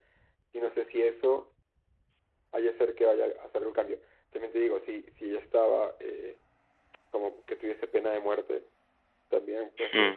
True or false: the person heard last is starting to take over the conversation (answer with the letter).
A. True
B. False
B